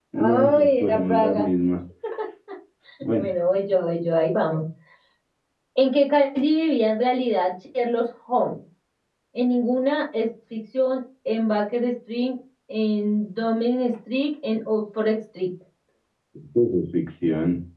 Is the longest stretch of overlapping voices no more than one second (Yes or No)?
No